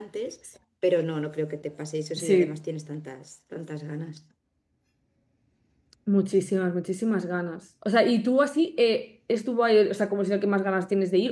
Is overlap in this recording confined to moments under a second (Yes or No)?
Yes